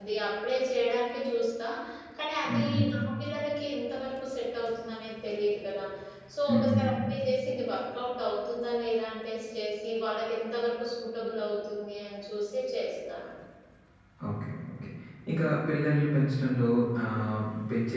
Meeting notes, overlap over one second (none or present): none